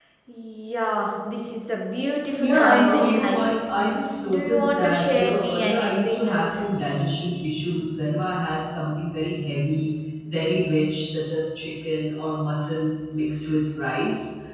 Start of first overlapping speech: 2 s

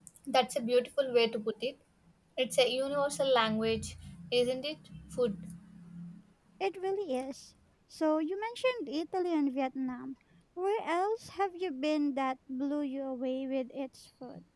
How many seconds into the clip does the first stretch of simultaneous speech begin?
none

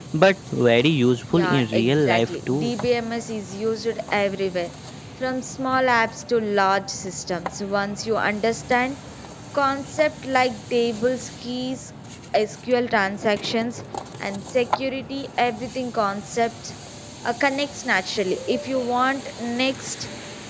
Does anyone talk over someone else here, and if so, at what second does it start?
1 s

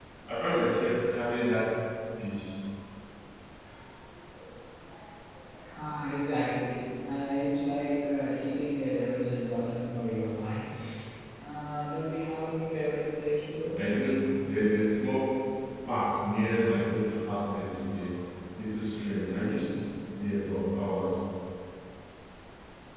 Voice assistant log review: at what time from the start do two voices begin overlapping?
none

